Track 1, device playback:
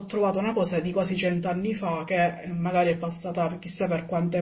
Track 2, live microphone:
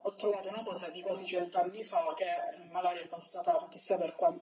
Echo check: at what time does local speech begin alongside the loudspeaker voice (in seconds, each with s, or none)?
none